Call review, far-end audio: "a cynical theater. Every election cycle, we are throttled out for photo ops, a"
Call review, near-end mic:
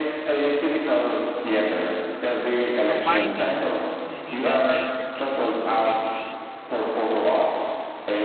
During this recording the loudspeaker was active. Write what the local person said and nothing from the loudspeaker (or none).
providing legal aid for VA